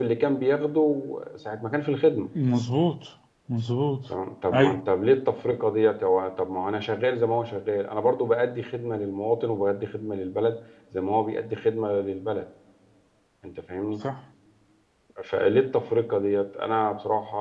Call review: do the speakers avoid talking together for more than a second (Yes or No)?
Yes